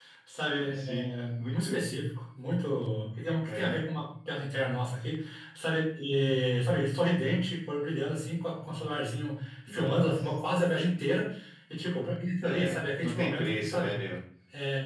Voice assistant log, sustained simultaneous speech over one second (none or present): present